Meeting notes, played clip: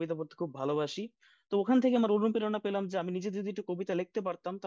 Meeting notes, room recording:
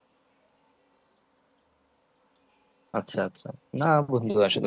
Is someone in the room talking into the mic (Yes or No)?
Yes